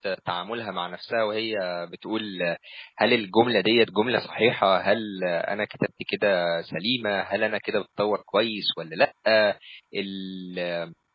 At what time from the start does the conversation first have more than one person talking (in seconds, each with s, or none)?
none